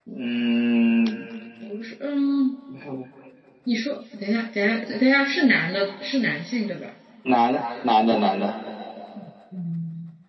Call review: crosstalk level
none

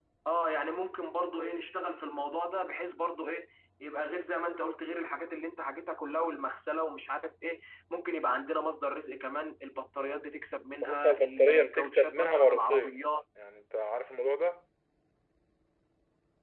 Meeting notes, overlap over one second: present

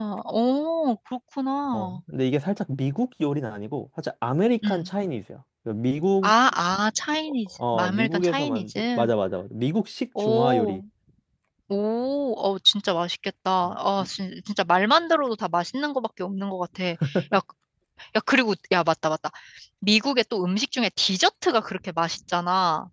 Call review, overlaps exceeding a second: present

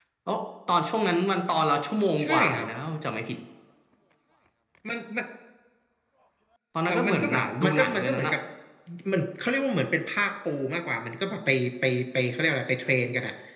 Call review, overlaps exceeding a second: present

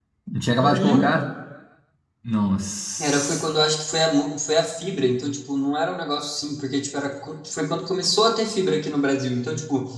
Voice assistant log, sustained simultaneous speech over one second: none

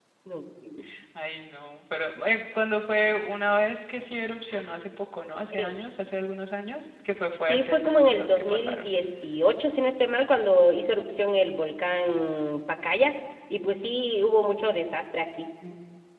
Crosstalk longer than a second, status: present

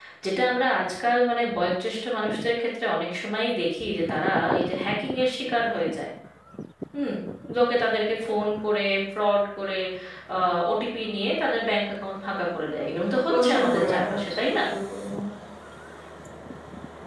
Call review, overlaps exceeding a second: present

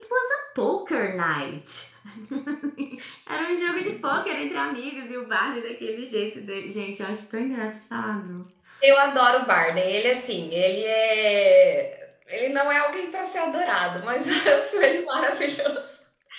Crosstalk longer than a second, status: none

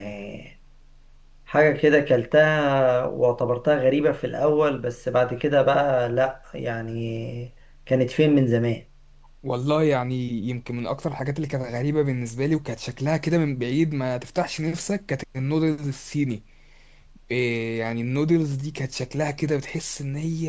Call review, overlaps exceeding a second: none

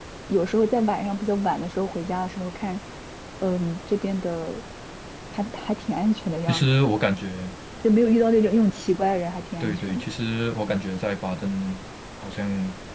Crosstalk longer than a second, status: none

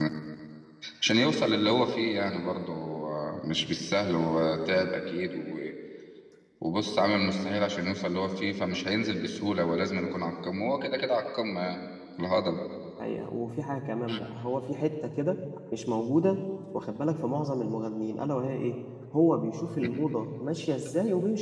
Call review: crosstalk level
none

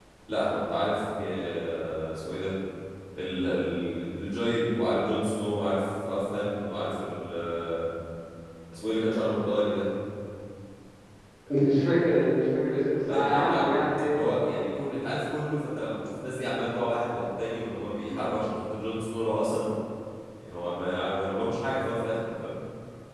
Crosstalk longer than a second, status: none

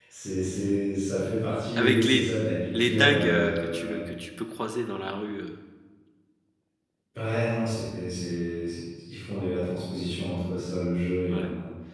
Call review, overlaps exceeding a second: present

